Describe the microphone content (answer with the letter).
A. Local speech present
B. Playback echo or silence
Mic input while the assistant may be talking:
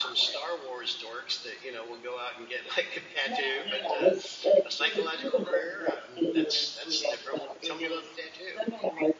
A